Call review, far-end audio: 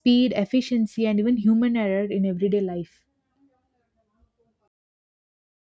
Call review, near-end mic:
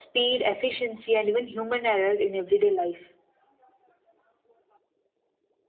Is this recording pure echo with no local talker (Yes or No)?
Yes